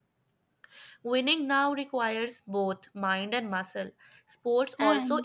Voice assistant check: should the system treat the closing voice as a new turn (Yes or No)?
No